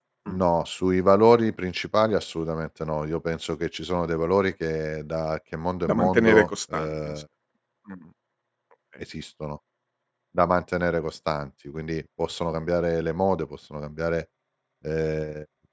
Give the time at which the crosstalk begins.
6 s

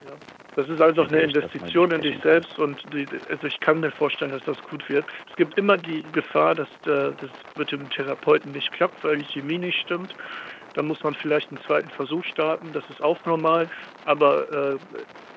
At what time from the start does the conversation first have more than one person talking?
1 s

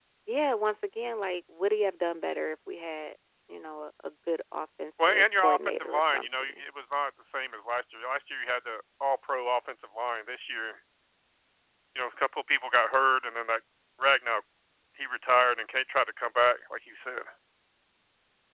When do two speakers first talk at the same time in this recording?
5 s

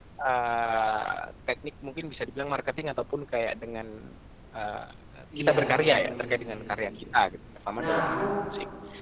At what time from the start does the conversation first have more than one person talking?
5 s

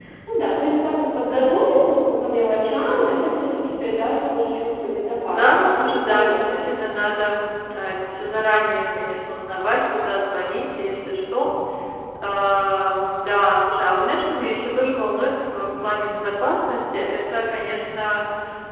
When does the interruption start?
5 s

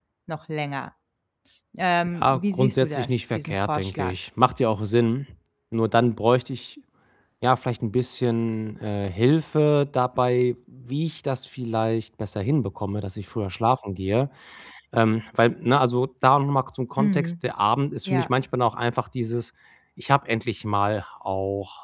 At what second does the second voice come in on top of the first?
2 s

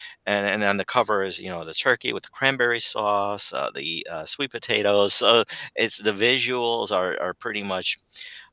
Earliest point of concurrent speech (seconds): none

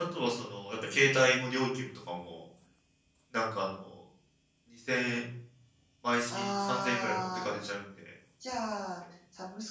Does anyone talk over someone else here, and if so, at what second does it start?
6 s

